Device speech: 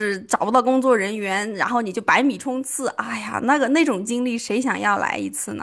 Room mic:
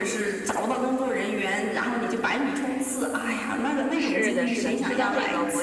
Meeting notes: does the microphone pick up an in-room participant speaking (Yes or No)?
Yes